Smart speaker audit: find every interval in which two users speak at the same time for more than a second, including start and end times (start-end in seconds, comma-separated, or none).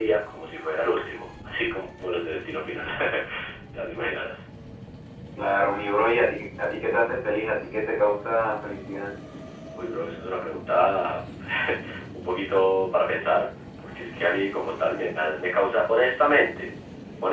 none